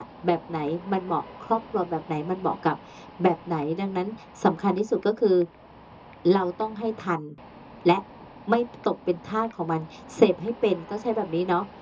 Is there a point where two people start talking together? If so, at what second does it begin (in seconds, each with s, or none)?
none